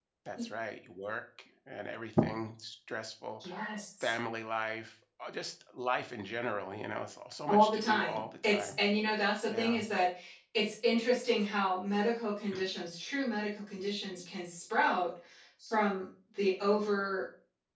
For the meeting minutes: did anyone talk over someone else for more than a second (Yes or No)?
Yes